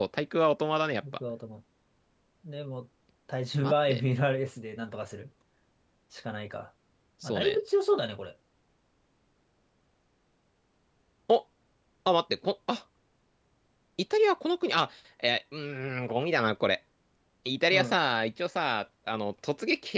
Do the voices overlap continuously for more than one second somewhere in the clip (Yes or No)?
No